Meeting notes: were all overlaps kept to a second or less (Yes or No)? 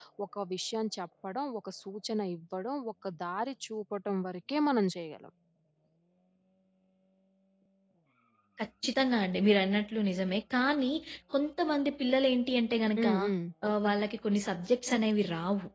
Yes